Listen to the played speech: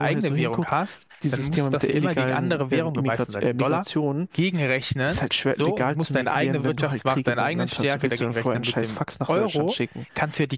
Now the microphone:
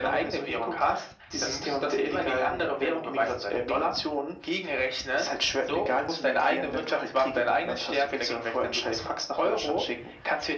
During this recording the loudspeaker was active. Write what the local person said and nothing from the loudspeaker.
none

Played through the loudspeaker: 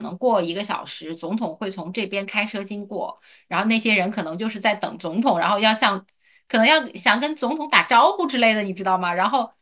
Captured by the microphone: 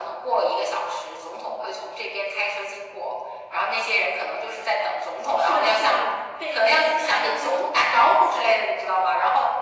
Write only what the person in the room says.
是的，是的，被明星艾灸。

